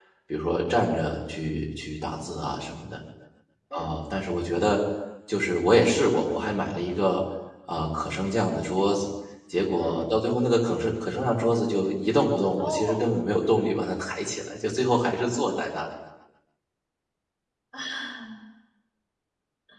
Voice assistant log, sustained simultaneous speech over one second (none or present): none